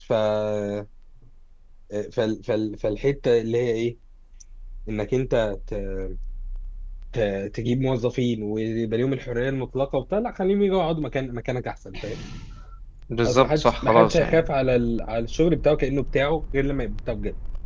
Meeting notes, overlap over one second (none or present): present